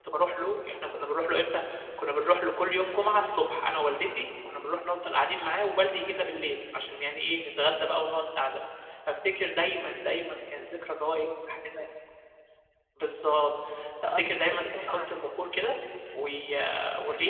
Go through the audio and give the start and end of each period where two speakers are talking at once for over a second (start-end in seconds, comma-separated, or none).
14.0-15.5